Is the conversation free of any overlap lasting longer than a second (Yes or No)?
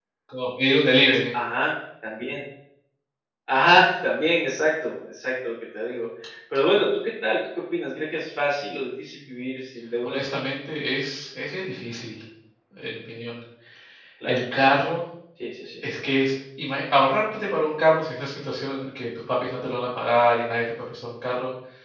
Yes